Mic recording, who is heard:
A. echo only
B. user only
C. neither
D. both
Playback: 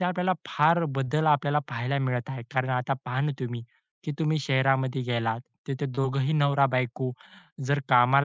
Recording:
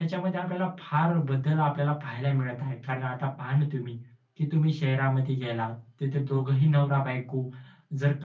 A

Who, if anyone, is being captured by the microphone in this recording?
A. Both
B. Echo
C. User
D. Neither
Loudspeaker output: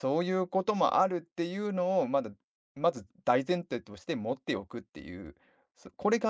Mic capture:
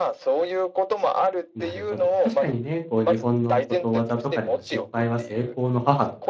A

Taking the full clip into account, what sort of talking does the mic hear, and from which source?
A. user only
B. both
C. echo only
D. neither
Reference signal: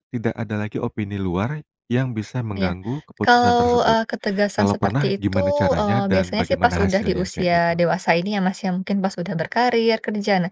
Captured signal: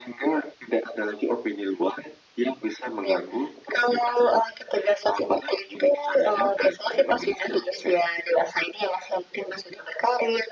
C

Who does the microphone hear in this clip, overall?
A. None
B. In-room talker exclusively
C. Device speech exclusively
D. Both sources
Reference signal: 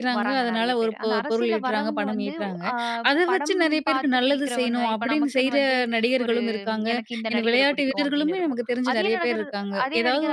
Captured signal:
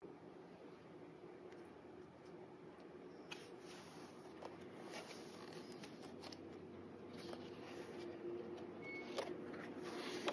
A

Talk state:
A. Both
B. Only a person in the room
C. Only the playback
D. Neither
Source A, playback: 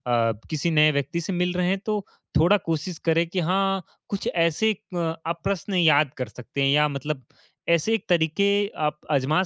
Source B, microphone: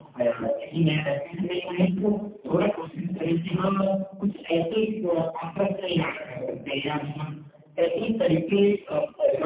C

